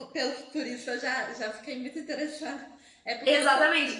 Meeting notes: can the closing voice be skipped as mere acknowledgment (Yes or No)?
No